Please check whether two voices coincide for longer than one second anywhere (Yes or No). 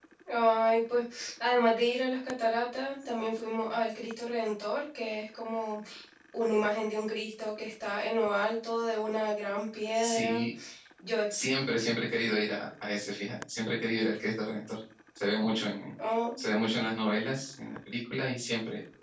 No